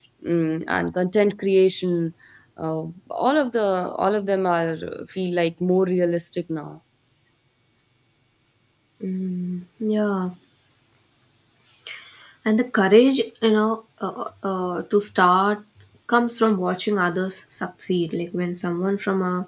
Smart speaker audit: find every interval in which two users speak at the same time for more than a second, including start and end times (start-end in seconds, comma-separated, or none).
none